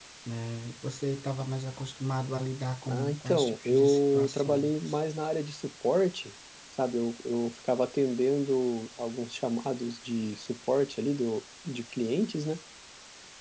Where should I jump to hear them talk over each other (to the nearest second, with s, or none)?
3 s